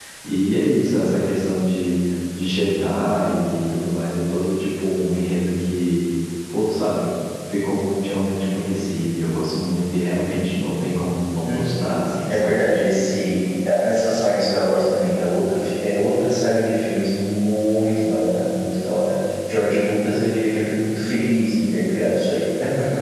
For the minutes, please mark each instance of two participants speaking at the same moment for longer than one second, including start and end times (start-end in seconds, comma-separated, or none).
11.4-12.6